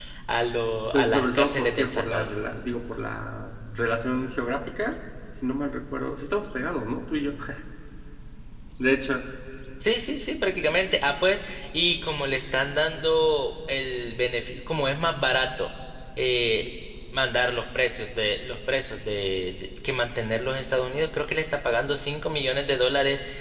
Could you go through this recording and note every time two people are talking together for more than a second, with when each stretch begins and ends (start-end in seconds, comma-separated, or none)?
0.9-2.3